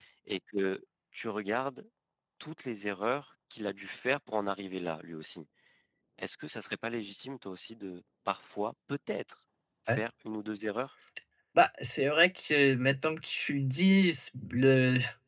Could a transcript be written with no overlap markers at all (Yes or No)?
Yes